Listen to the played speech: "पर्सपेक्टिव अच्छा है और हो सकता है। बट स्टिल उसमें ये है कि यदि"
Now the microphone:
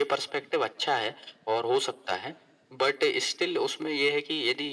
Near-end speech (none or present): none